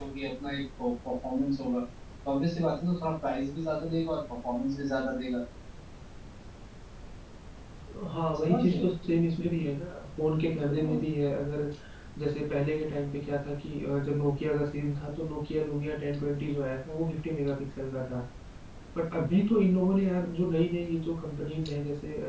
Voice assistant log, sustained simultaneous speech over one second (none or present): none